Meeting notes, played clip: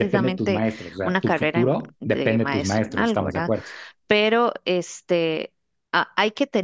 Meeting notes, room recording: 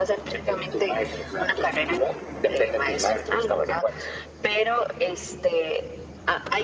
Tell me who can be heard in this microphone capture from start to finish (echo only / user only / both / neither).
echo only